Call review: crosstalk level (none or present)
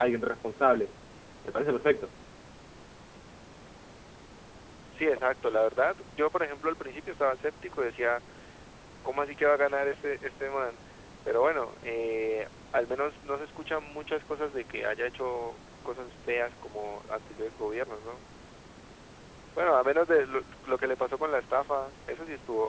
none